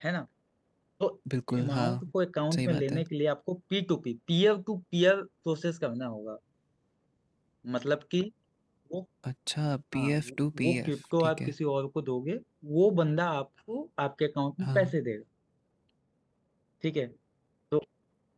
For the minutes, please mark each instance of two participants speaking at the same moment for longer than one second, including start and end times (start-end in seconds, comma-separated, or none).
9.9-11.5